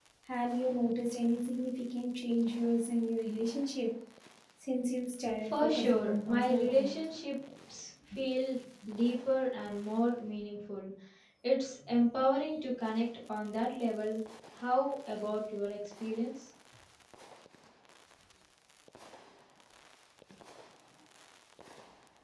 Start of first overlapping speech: 5 s

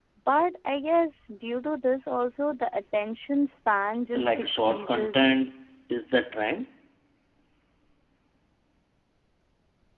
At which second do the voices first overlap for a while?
4 s

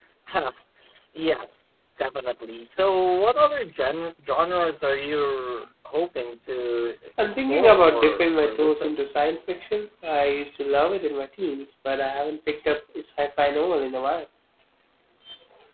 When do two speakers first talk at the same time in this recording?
7 s

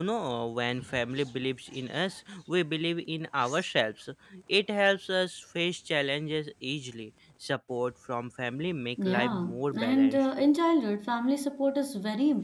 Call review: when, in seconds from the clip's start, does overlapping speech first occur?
9 s

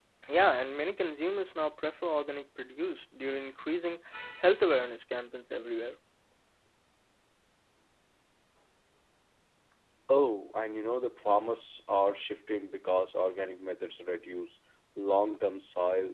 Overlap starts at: none

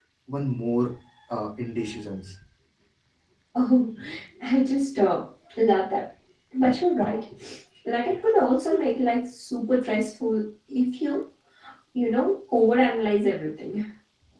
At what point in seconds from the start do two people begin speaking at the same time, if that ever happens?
none

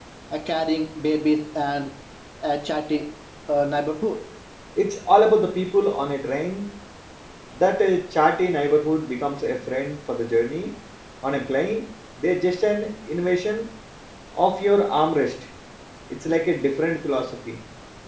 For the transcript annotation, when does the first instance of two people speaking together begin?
none

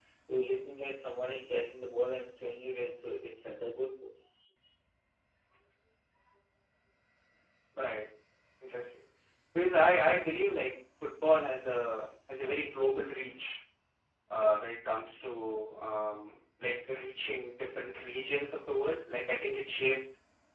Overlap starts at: none

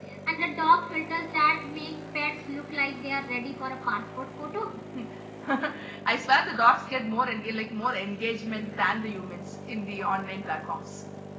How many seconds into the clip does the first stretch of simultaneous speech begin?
none

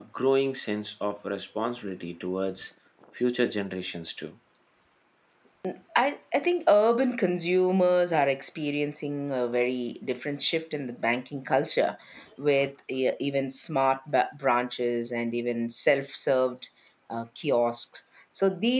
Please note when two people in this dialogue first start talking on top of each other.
none

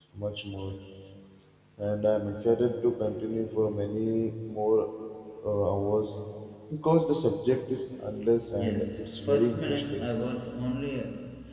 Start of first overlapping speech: 8 s

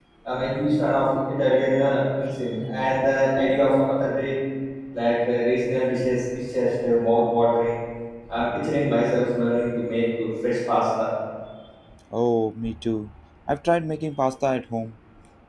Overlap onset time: none

